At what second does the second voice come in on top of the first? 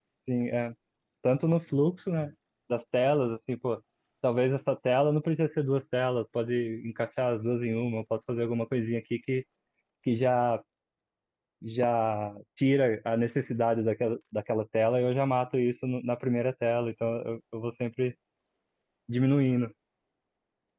none

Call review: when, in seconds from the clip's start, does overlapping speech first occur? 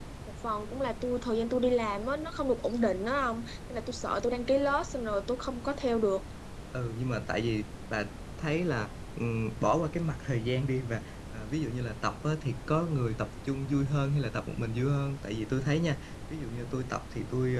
none

